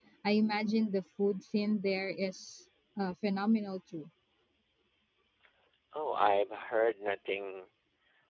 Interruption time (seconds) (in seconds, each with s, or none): none